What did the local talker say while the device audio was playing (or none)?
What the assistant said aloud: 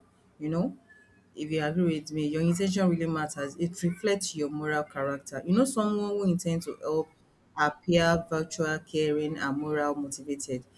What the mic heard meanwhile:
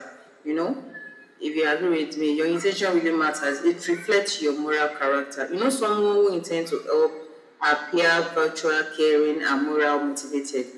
none